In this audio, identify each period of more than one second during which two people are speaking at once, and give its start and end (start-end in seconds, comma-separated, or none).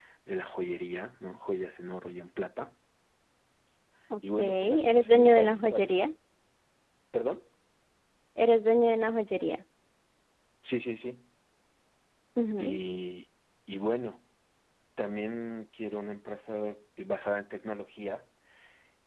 4.4-6.0